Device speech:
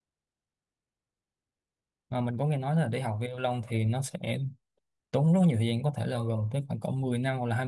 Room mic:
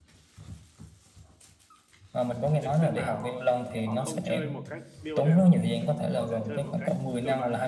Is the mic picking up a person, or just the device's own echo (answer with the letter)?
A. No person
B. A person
B